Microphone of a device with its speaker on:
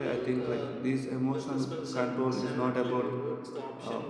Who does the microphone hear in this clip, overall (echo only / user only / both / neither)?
both